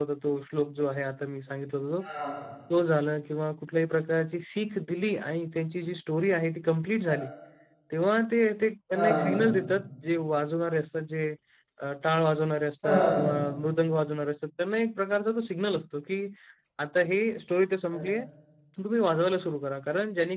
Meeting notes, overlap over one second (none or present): none